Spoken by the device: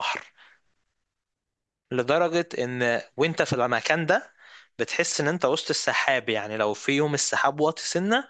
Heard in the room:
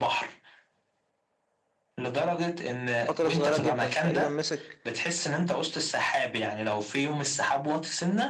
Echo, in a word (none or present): present